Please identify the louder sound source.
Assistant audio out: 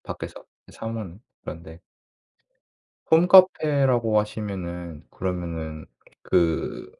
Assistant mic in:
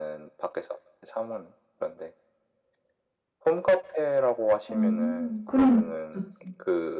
user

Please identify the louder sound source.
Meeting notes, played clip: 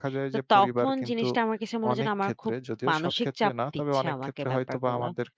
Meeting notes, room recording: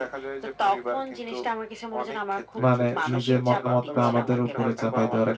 user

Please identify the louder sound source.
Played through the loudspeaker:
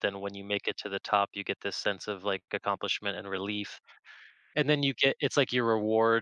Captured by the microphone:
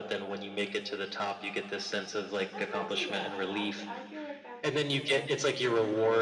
echo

